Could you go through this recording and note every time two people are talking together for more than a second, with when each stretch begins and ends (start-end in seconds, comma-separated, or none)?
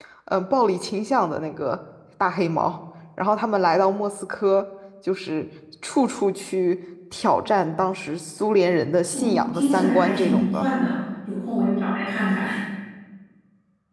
9.1-10.7